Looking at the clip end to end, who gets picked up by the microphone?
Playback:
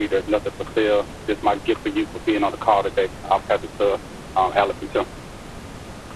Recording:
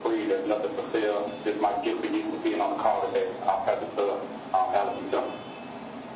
echo only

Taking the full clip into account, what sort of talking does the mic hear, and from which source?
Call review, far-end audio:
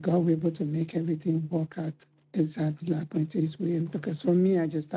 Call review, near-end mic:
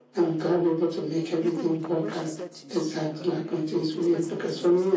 both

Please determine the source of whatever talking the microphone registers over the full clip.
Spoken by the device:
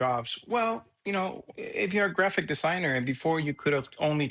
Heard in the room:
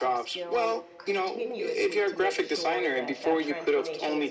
both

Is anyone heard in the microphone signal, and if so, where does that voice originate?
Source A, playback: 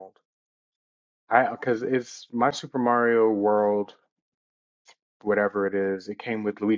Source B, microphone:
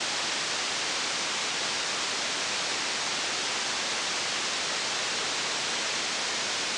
neither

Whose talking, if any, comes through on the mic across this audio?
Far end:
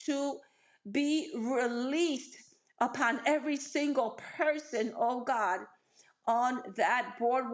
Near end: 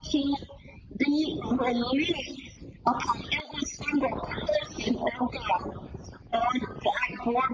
echo only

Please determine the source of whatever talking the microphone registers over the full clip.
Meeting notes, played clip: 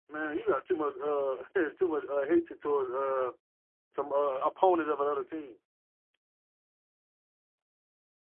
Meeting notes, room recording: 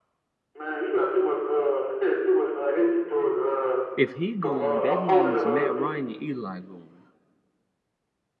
both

